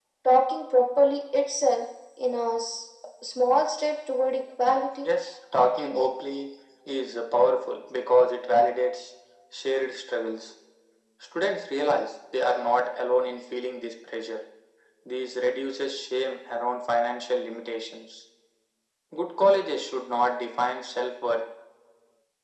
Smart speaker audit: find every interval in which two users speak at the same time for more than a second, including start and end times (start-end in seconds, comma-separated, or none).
none